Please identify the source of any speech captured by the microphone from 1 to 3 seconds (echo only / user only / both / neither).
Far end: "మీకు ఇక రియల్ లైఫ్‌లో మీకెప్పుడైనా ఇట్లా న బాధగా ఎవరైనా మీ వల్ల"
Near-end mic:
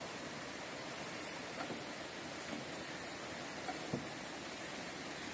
neither